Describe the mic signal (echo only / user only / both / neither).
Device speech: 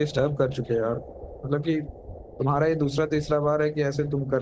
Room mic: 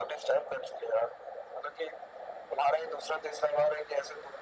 echo only